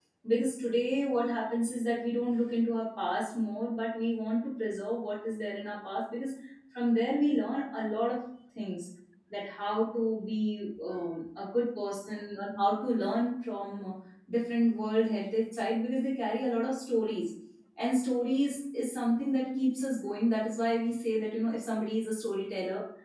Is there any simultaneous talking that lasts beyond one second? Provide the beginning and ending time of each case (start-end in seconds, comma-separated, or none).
none